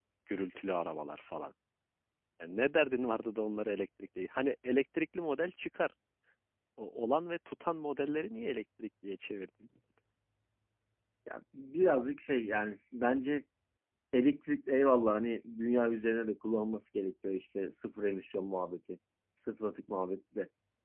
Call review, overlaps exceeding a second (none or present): none